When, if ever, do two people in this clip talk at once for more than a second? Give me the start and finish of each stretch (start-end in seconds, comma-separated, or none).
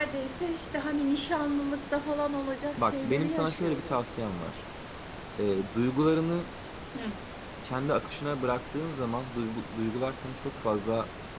2.8-4.0